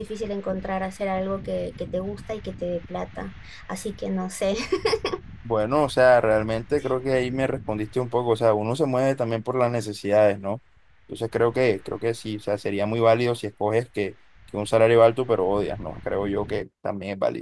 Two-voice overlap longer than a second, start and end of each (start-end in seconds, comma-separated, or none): none